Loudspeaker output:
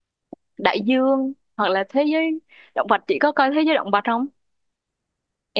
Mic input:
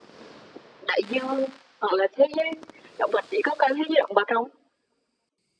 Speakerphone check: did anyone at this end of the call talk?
No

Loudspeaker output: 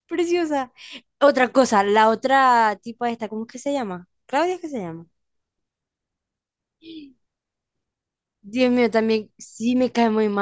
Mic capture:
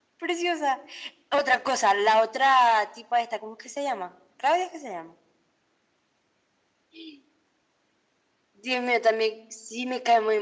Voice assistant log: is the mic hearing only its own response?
Yes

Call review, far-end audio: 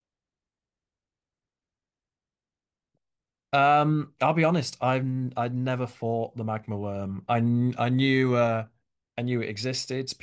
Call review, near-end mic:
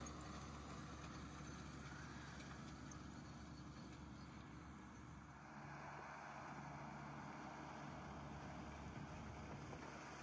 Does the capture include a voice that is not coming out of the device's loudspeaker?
No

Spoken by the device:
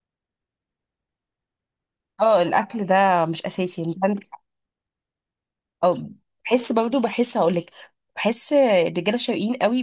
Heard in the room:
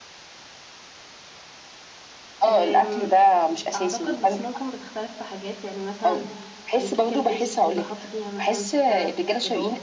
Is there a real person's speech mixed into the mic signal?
Yes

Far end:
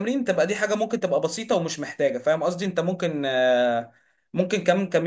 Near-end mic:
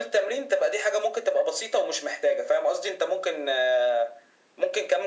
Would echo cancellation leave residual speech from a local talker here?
No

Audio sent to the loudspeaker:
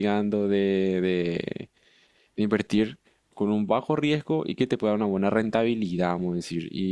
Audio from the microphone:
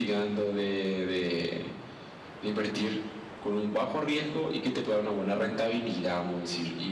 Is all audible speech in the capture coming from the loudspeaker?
Yes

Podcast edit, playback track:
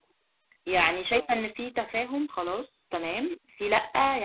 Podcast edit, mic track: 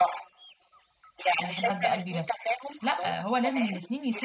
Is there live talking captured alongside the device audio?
Yes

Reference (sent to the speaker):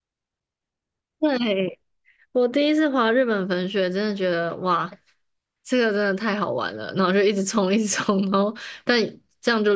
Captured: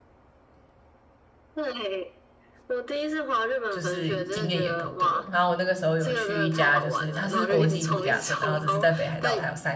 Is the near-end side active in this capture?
Yes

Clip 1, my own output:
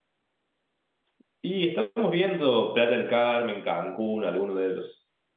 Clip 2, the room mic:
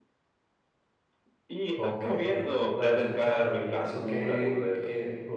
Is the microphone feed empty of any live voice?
No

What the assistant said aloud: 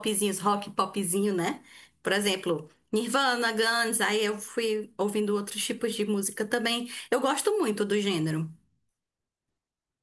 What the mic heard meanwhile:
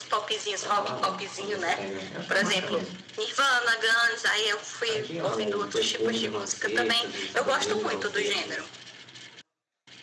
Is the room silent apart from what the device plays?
No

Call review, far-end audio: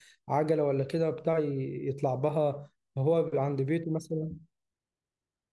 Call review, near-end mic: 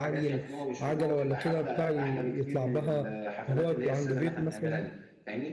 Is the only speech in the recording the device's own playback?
No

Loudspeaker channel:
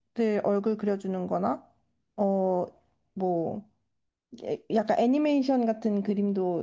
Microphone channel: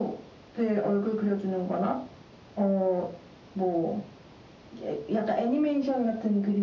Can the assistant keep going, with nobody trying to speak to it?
Yes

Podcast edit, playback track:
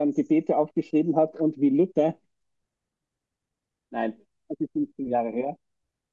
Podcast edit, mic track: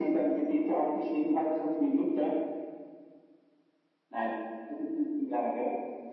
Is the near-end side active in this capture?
No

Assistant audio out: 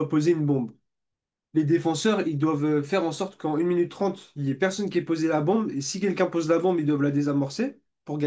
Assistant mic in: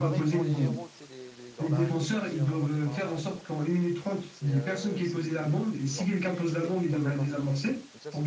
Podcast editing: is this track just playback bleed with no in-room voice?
No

